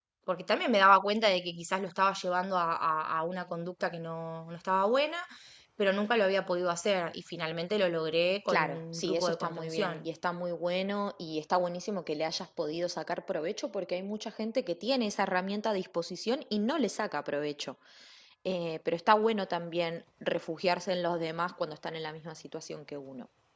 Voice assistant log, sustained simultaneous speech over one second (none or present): present